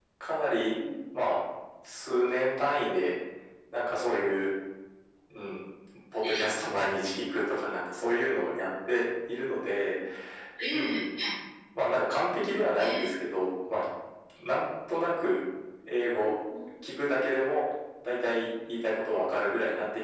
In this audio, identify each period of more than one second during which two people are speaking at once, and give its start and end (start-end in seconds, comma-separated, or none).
none